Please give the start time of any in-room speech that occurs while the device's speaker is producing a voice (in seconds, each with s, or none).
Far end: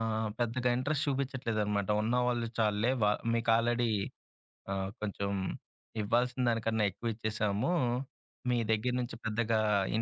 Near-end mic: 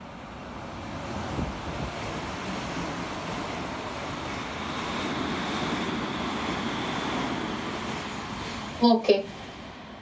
8.9 s